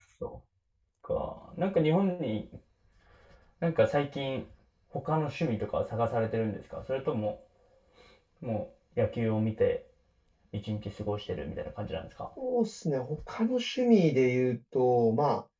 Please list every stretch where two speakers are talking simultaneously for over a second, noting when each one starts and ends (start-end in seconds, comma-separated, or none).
none